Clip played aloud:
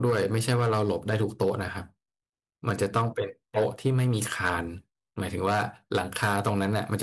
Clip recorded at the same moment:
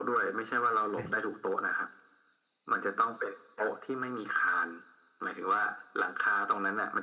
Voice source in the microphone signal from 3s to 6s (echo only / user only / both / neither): echo only